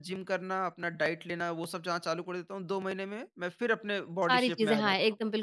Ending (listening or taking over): taking over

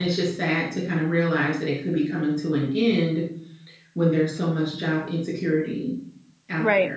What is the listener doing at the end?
taking over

